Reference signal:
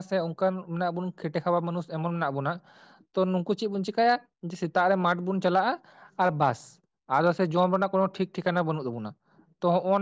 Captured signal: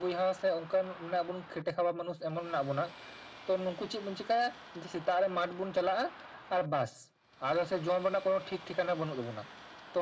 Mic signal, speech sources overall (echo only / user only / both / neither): echo only